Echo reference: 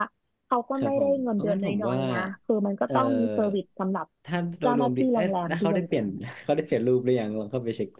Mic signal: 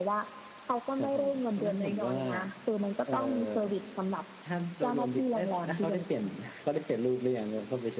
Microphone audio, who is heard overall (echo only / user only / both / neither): echo only